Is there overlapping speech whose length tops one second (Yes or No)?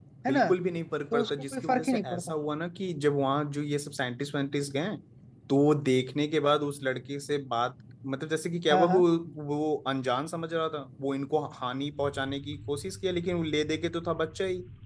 Yes